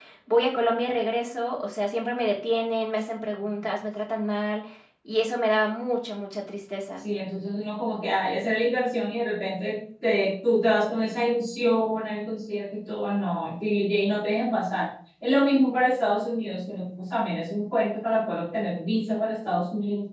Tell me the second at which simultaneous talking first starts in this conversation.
none

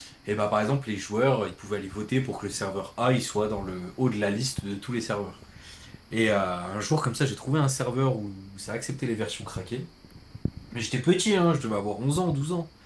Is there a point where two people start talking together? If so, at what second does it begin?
none

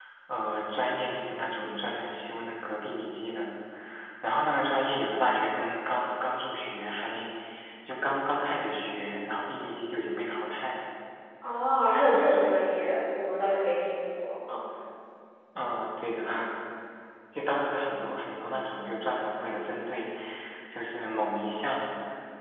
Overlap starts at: none

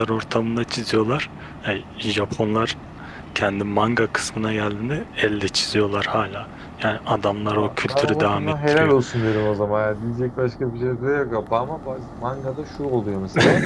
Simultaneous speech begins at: 7 s

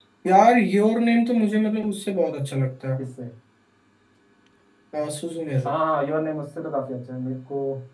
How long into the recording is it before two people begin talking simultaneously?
none

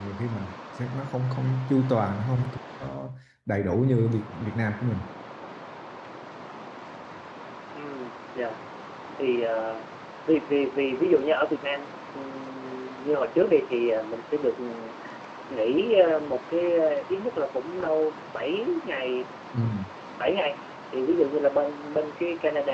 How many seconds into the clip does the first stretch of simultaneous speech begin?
none

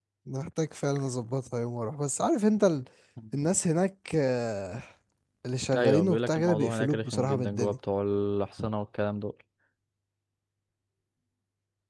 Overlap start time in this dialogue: 6 s

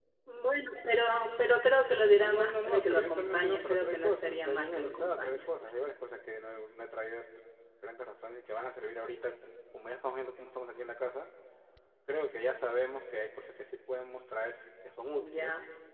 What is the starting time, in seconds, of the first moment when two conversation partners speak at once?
2 s

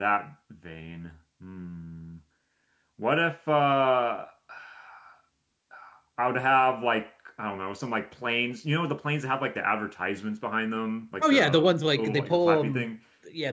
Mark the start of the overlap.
11 s

